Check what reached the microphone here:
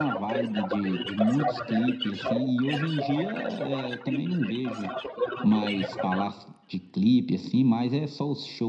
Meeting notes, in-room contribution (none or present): present